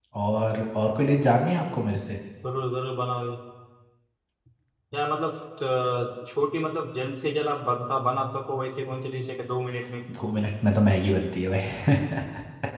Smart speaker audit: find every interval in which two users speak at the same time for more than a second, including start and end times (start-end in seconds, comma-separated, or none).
none